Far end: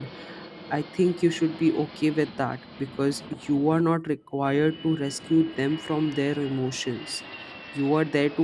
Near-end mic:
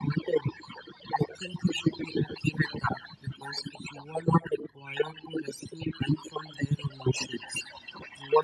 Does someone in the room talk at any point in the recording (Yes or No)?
No